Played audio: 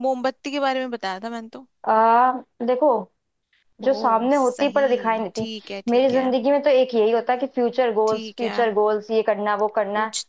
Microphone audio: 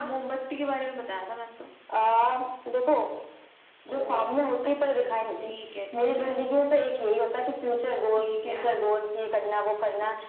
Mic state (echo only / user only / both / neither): echo only